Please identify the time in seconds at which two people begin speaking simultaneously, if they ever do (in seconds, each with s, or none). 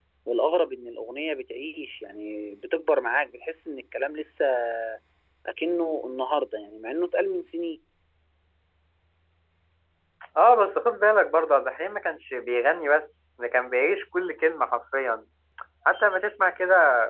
none